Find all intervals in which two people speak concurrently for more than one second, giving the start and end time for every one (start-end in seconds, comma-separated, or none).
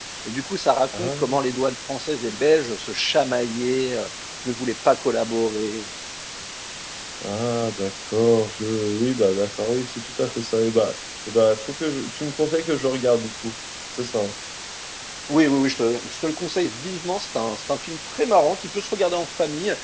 none